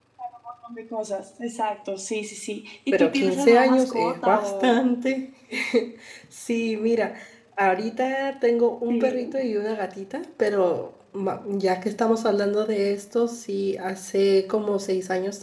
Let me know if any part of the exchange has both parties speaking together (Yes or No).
Yes